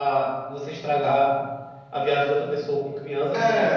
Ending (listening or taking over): taking over